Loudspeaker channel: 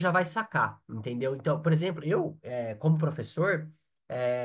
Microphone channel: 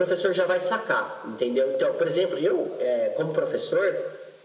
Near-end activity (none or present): none